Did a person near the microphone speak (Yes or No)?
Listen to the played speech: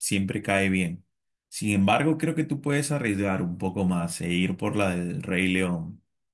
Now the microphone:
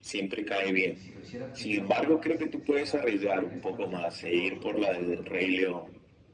Yes